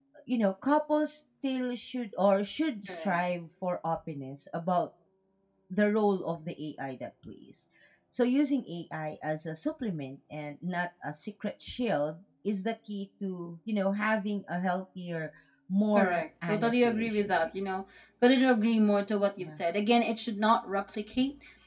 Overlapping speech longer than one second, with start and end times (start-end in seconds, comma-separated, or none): 15.9-17.5